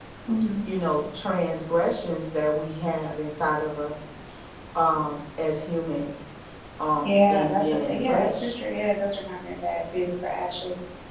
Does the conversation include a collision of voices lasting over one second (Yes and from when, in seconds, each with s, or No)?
Yes, from 7.3 s